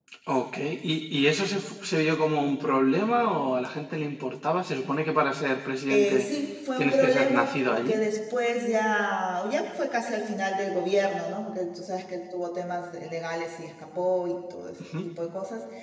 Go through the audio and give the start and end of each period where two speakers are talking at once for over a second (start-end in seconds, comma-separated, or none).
6.8-8.0